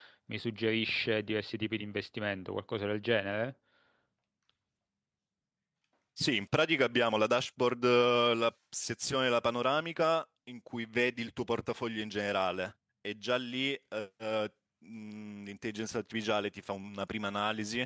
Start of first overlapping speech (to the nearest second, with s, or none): none